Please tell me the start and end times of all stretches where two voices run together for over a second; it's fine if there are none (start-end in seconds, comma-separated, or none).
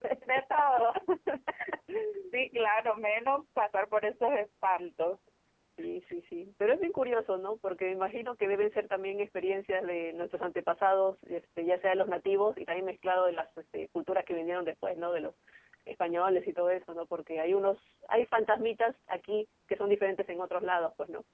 none